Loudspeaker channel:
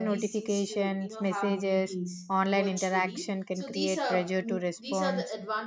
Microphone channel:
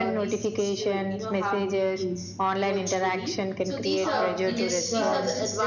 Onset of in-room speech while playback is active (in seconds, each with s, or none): 4.0 s